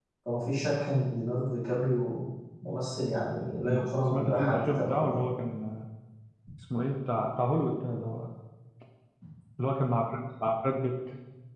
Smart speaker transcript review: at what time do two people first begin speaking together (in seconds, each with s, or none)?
3.6 s